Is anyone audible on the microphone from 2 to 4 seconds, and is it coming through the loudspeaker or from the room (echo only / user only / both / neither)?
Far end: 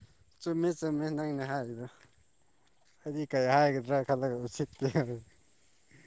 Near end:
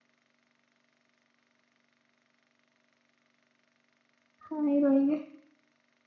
neither